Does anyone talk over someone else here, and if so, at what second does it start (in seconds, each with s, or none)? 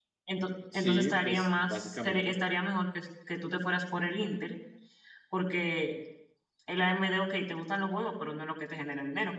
0.7 s